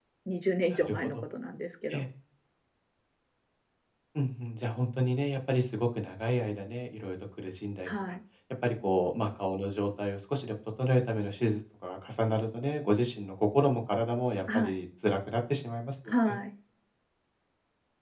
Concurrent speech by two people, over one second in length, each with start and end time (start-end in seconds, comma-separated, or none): none